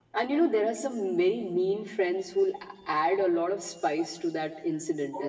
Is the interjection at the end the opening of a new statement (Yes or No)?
No